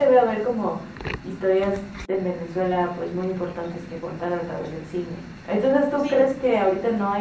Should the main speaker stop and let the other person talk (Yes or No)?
No